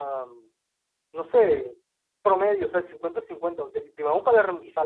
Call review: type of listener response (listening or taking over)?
listening